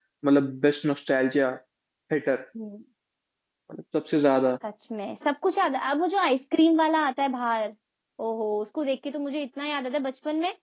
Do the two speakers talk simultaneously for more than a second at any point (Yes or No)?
No